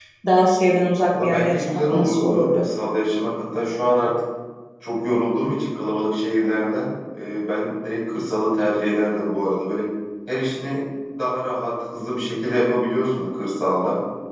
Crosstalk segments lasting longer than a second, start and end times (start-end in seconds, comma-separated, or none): 1.1-2.6